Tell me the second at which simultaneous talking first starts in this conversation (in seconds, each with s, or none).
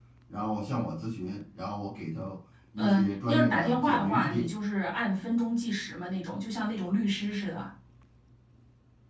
2.8 s